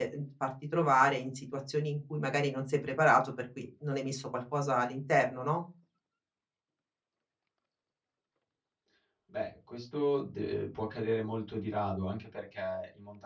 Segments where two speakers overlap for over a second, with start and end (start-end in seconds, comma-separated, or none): none